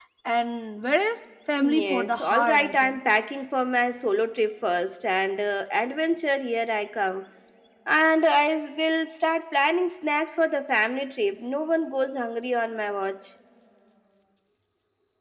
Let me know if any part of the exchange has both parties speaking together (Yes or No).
Yes